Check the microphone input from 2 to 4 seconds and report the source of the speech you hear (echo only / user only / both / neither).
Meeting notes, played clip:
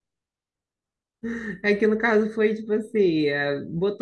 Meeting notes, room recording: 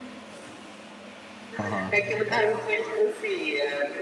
both